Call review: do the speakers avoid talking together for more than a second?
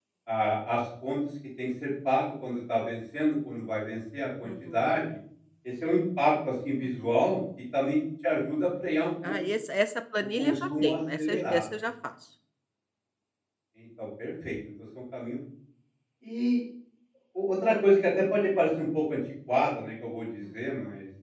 No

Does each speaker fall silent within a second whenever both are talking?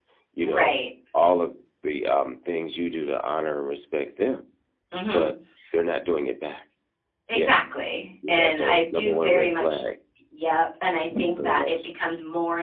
No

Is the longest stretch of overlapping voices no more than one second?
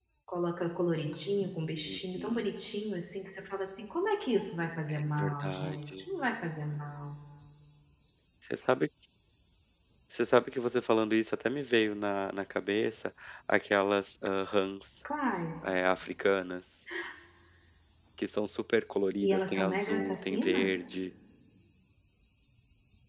No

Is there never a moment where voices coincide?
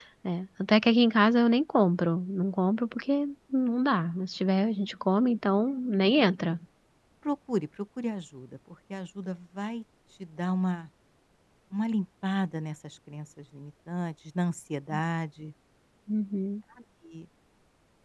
Yes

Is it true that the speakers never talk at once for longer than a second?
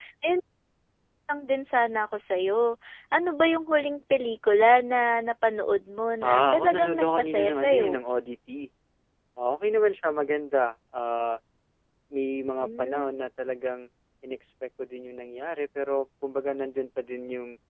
No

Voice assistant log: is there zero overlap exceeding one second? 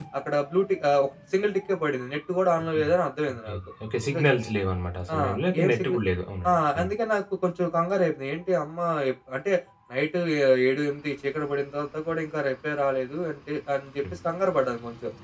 Yes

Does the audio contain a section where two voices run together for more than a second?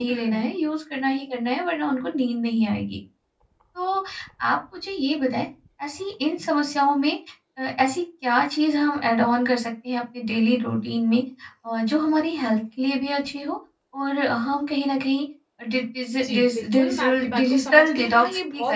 Yes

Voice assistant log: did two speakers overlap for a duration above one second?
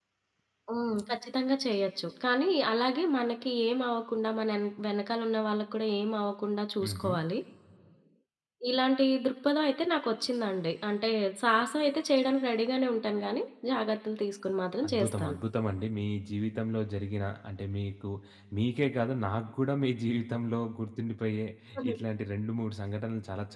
No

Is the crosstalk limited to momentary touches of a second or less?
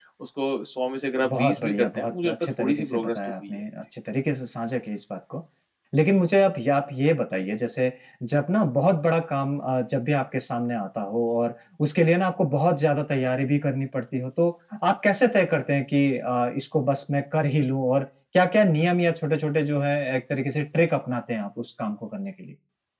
No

